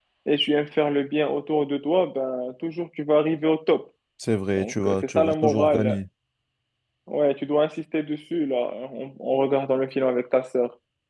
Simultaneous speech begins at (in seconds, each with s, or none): 4.6 s